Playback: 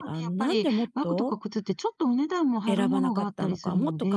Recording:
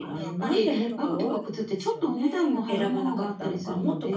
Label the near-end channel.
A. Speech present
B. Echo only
A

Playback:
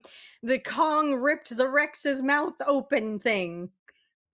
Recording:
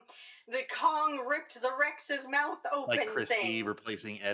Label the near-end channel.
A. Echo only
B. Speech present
B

